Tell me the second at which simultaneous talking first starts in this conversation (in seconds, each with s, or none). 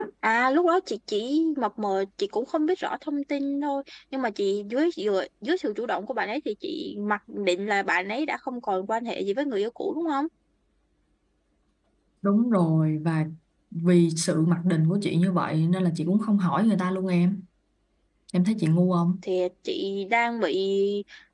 none